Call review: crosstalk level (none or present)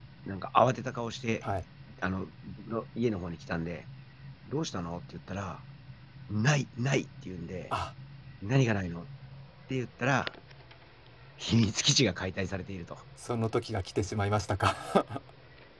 none